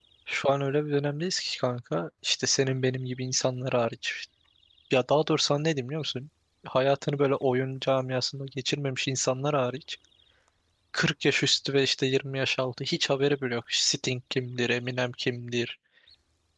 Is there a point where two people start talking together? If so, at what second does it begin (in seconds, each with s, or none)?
none